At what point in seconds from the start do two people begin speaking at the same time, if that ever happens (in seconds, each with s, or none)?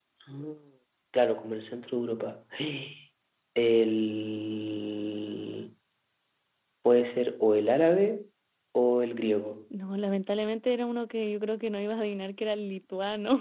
none